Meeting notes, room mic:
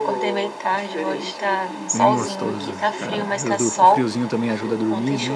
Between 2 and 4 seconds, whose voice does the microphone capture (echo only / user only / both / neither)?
both